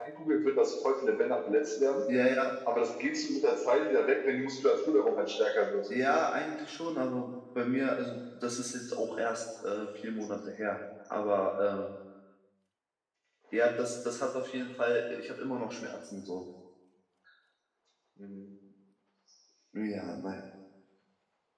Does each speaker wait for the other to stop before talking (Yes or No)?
Yes